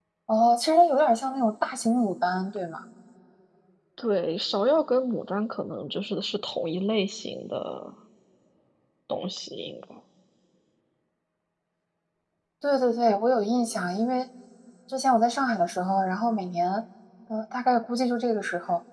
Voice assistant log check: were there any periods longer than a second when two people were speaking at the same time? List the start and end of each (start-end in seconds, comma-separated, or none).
none